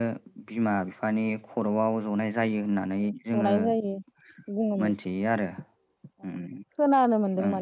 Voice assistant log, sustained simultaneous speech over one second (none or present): none